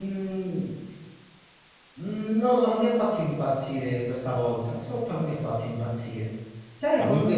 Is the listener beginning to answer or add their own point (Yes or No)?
No